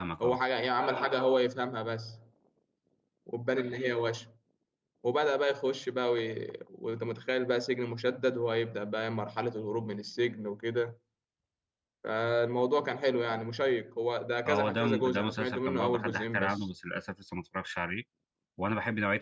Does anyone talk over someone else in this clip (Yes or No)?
Yes